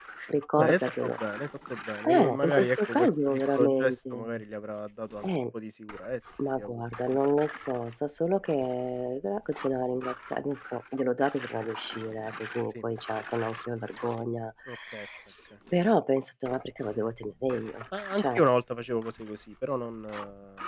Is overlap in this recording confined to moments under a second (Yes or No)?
No